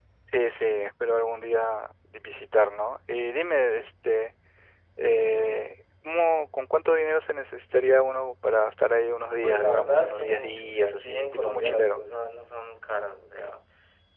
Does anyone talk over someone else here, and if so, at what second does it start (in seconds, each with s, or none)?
9.4 s